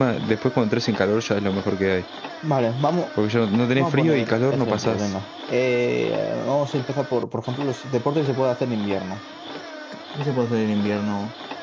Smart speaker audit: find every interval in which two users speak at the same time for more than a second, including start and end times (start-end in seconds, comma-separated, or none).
3.8-5.1